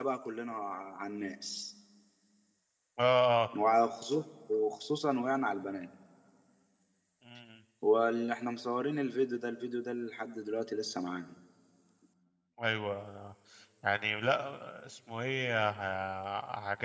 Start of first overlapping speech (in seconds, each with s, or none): none